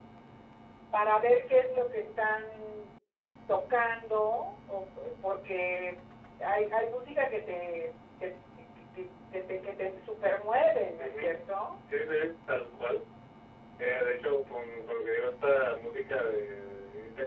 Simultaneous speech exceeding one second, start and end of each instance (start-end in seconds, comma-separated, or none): none